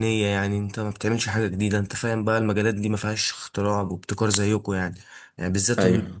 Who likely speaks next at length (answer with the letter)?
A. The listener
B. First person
B